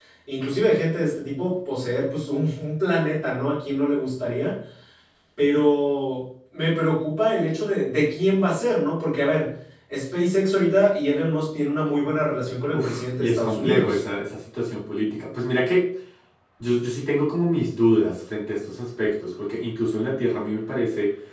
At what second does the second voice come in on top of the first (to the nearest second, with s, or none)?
13 s